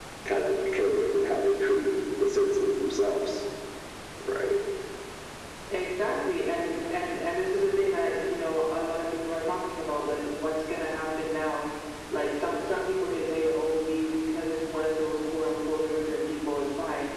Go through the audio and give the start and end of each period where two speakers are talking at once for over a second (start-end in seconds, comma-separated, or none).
none